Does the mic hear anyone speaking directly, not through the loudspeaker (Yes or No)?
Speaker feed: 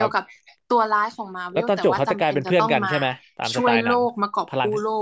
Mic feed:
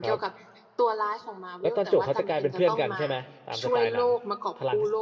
No